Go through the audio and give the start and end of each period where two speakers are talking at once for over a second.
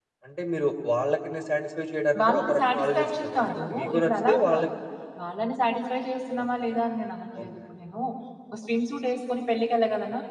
2.2-4.7

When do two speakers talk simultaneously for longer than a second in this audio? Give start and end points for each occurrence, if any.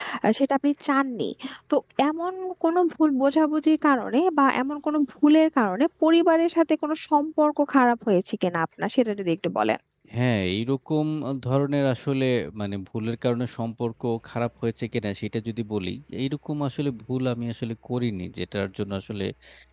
none

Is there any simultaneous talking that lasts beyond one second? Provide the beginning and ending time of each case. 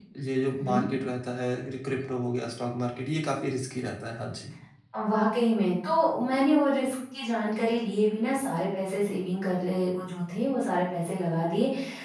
none

